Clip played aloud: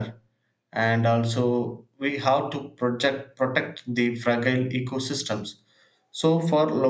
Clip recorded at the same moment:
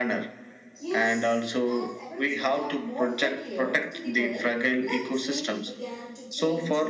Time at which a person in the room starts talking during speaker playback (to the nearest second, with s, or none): 1 s